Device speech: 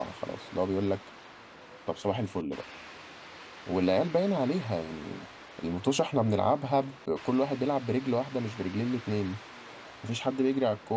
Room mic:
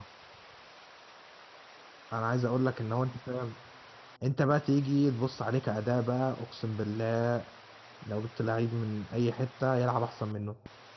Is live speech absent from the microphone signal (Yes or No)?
No